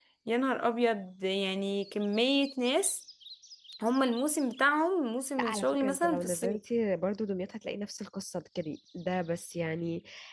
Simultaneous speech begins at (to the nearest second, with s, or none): 5 s